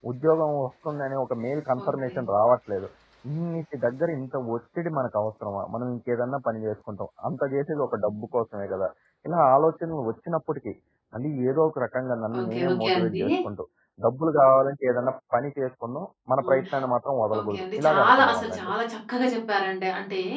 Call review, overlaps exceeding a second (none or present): present